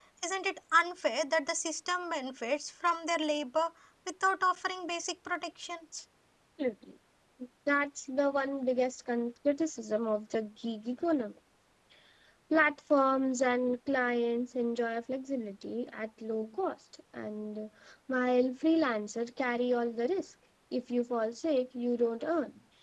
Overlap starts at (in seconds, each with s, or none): none